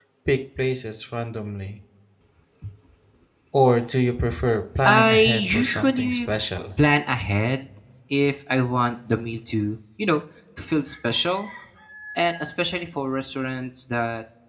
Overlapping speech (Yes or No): Yes